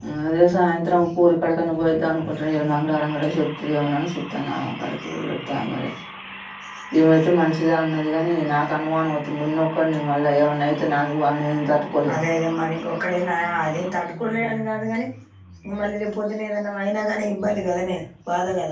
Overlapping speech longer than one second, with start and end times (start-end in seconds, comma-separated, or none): none